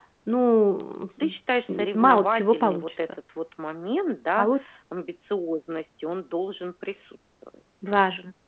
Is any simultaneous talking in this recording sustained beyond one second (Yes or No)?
Yes